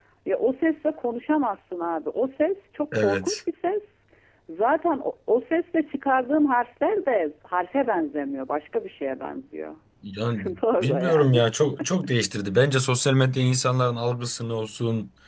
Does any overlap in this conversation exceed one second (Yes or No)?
Yes